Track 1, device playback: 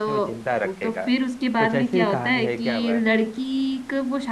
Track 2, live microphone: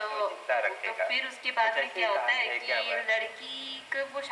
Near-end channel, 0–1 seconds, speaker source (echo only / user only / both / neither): echo only